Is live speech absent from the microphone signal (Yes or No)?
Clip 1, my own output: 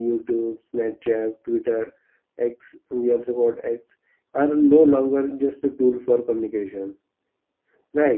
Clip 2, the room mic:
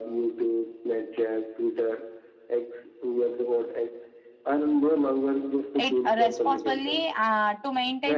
No